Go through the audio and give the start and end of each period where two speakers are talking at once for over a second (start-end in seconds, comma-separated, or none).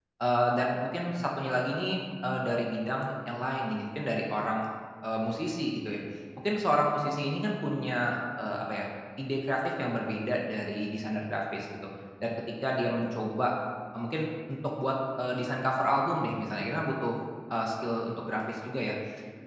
none